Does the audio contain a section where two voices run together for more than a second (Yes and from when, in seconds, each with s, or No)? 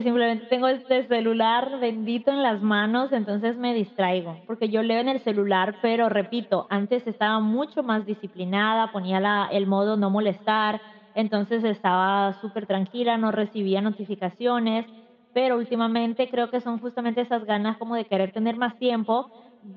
No